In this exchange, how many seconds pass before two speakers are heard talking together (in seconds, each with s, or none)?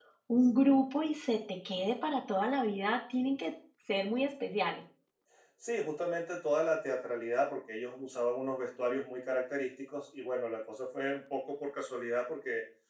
none